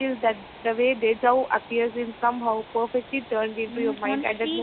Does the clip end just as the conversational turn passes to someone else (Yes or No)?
Yes